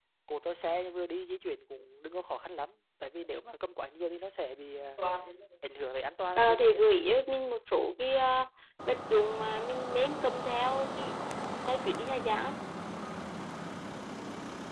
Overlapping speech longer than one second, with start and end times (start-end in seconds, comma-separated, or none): none